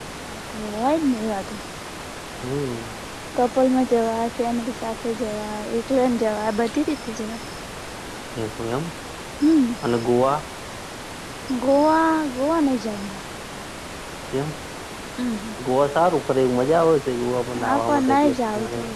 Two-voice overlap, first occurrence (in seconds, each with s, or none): 17.6 s